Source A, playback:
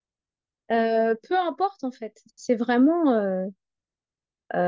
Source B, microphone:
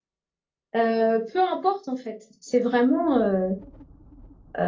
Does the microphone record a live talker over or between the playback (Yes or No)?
No